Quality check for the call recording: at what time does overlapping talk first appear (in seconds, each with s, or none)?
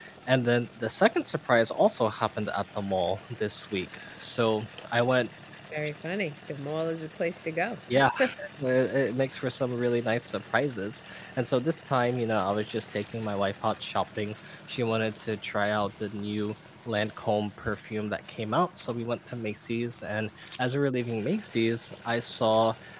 none